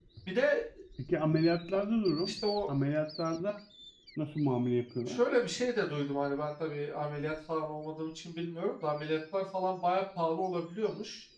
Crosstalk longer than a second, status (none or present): none